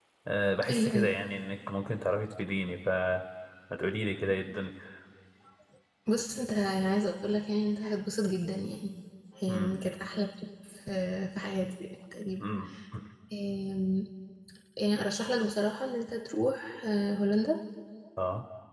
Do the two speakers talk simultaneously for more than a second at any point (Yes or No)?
No